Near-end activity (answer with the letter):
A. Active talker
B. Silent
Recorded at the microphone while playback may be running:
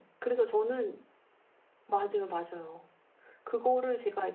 B